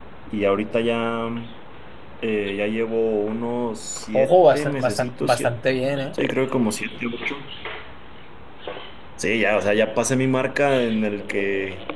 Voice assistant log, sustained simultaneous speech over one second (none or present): present